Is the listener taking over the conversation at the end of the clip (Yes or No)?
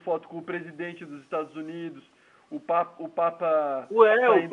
Yes